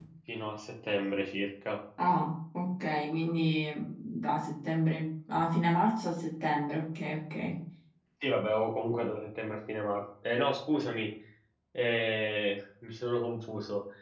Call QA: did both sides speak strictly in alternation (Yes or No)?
Yes